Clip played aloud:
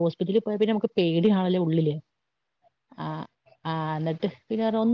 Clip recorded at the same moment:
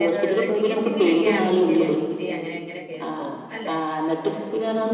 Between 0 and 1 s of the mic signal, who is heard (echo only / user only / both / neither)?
both